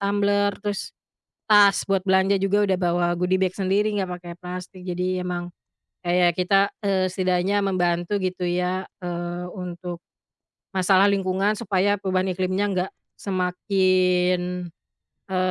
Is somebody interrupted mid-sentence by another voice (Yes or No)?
No